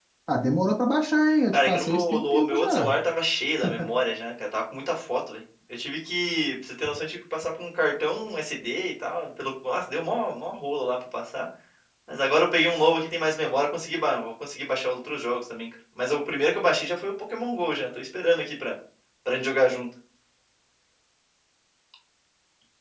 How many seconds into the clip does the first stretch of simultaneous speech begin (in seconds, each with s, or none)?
1.5 s